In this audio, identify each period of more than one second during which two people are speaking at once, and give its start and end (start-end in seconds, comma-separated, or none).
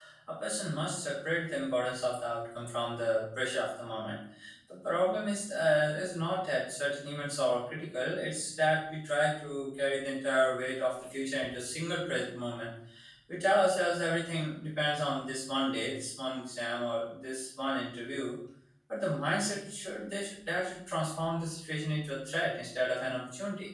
none